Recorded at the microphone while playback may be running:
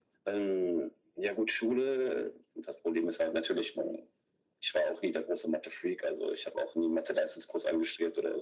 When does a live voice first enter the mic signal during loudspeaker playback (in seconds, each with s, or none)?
none